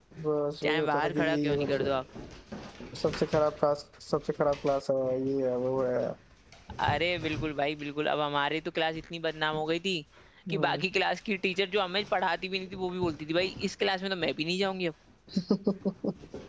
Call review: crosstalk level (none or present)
present